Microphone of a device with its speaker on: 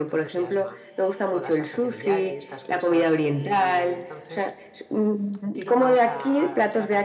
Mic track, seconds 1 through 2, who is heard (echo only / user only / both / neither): both